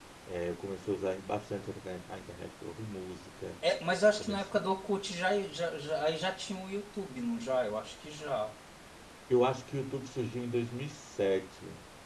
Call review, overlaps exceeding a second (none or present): none